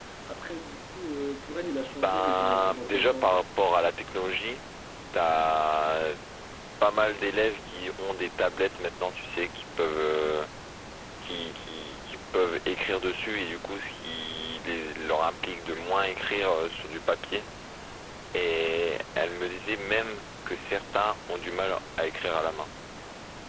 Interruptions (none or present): present